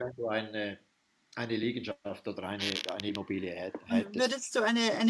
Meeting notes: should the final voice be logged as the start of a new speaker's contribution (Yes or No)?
Yes